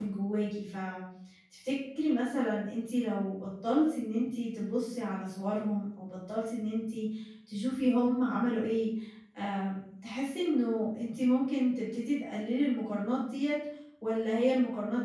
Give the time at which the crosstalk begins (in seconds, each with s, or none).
none